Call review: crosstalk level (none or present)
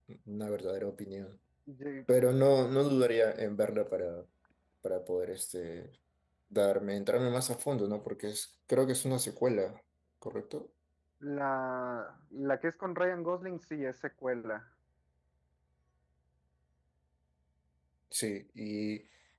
none